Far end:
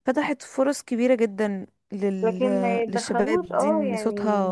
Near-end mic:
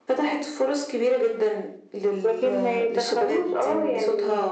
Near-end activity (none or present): none